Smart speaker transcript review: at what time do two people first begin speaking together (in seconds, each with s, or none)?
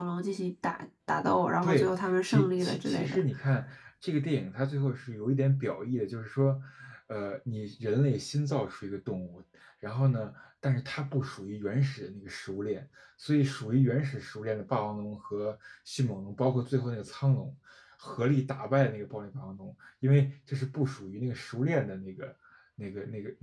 1.6 s